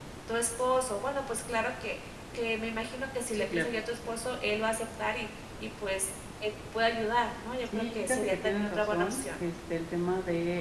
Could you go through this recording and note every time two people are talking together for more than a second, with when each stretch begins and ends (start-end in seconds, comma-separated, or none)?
7.8-9.2